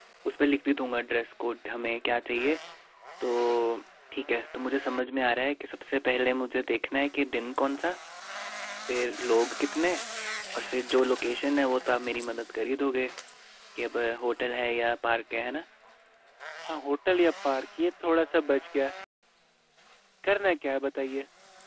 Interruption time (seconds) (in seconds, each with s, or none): none